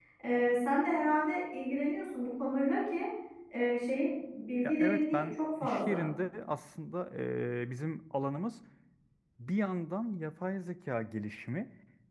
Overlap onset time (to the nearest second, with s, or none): 5 s